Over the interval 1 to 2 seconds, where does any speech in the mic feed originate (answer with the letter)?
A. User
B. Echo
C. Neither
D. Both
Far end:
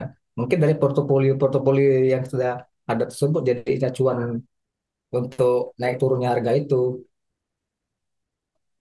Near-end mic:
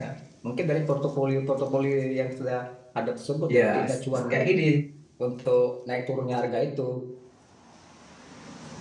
B